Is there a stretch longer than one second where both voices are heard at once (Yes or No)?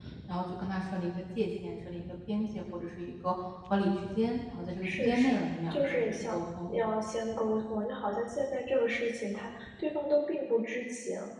Yes